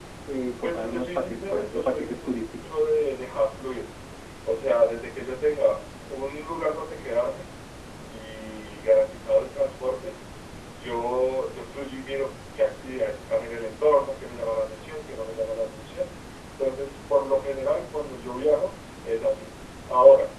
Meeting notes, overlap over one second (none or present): present